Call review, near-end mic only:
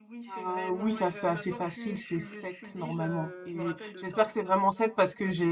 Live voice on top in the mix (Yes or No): Yes